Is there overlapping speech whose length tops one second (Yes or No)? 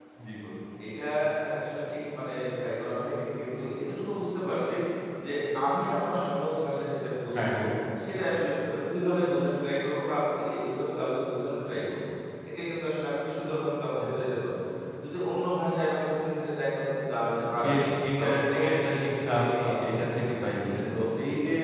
Yes